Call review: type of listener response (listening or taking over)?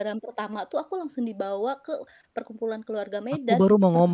taking over